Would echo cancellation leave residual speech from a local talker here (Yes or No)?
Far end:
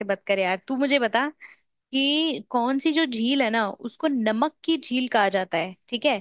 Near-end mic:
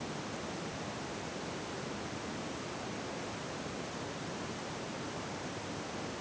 No